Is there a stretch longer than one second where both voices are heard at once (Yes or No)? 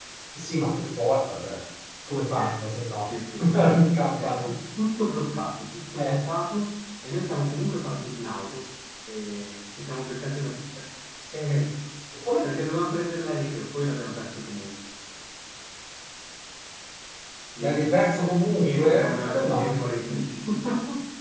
Yes